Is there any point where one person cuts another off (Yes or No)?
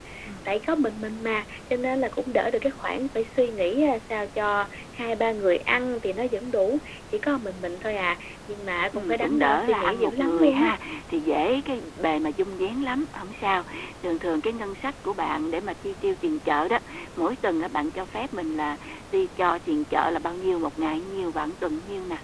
Yes